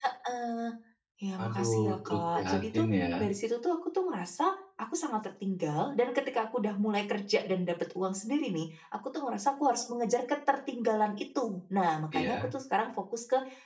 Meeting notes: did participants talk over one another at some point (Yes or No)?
Yes